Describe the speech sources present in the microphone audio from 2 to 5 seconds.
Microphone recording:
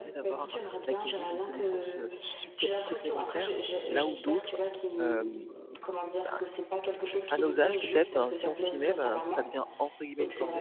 both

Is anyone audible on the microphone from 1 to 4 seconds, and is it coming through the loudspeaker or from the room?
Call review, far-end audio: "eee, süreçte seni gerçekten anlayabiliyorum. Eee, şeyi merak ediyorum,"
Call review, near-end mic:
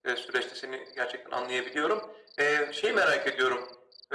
echo only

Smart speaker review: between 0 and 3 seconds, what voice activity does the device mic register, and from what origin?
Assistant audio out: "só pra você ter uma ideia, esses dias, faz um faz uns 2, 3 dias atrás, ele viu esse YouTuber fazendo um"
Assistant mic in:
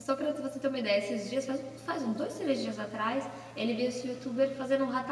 echo only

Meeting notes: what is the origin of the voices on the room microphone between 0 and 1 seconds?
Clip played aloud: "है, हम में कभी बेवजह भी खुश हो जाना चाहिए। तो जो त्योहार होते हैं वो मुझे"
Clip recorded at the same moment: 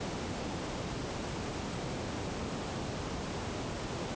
neither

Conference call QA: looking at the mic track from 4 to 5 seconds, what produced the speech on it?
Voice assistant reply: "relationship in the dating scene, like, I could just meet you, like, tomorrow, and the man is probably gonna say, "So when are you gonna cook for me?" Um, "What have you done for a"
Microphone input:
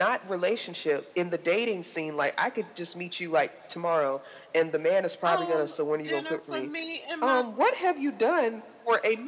echo only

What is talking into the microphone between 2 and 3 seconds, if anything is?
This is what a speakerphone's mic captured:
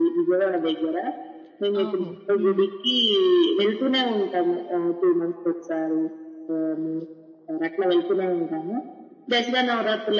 both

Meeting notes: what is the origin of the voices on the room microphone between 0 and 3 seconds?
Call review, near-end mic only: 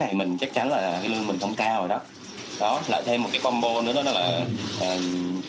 echo only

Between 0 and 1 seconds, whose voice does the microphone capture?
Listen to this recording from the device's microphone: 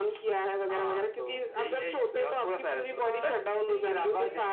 echo only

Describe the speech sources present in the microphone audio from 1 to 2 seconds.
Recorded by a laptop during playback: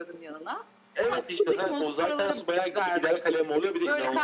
echo only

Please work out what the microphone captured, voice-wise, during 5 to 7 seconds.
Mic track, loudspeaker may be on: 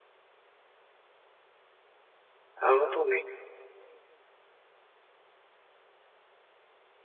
neither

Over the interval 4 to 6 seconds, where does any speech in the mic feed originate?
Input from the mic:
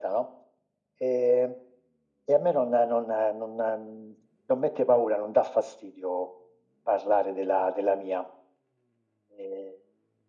echo only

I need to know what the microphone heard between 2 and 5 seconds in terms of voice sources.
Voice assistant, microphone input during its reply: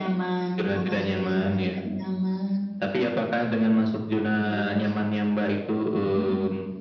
echo only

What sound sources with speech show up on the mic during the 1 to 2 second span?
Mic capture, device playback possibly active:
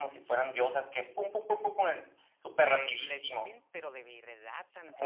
echo only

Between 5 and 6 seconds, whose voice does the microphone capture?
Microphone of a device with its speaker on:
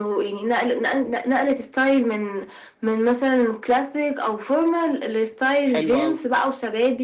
both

